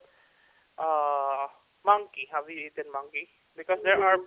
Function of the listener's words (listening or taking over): listening